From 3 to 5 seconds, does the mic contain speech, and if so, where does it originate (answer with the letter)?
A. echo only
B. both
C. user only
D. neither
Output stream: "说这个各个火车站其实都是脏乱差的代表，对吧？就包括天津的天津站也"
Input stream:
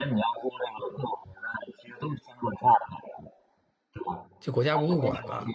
B